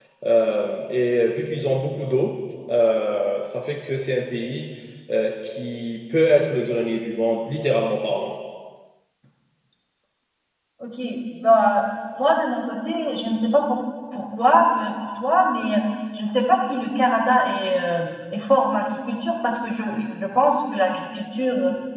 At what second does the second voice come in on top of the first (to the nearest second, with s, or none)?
none